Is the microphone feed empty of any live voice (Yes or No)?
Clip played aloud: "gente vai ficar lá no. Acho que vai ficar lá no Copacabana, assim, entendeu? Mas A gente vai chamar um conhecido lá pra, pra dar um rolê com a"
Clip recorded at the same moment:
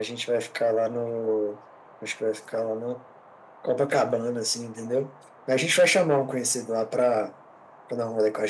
Yes